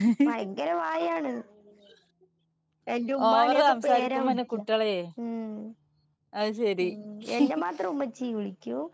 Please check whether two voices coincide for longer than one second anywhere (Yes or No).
Yes